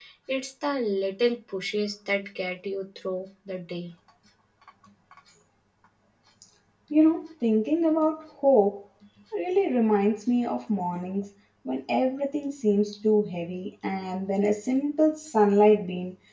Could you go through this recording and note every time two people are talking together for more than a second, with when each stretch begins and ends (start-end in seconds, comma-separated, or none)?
none